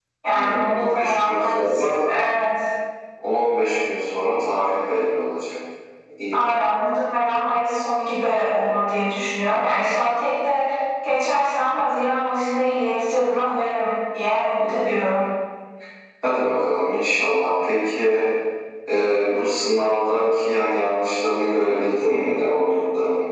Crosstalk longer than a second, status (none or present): present